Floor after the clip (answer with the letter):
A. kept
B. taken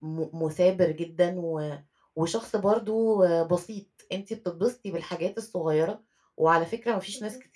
A